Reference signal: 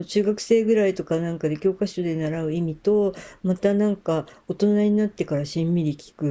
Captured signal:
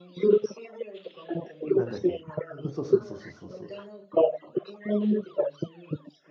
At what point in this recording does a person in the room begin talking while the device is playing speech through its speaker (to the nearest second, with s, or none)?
2 s